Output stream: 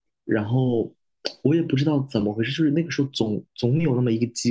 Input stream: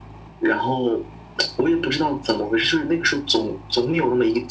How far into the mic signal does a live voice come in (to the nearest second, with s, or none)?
none